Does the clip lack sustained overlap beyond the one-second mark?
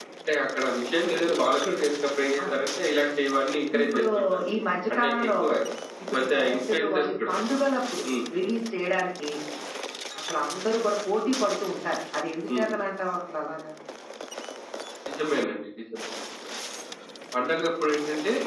No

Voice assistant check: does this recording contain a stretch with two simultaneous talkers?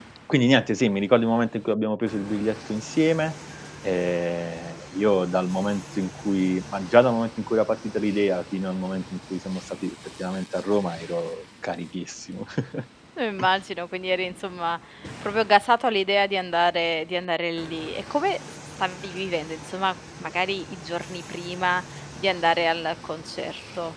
No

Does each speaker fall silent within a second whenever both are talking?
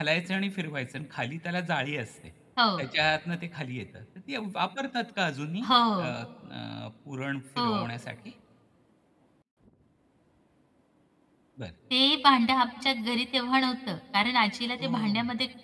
Yes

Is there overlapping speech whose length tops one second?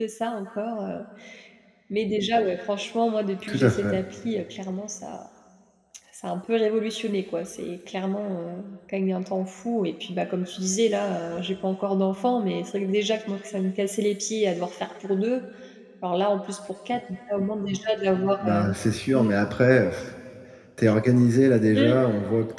No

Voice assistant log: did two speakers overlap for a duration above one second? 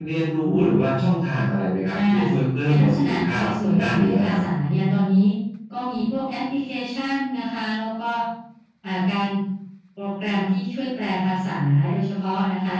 Yes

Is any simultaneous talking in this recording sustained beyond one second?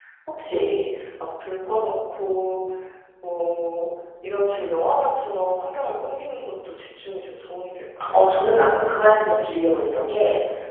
No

